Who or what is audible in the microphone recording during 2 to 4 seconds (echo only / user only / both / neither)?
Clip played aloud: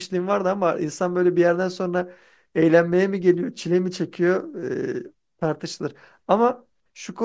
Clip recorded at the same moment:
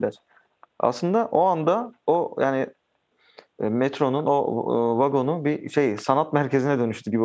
user only